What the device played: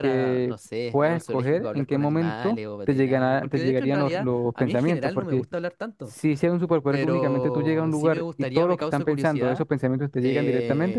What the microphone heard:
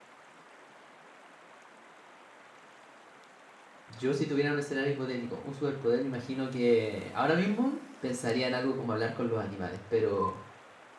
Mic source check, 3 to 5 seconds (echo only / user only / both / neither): user only